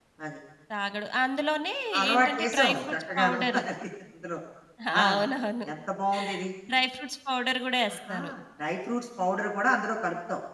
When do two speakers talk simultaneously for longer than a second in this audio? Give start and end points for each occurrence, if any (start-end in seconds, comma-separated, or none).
2.1-3.6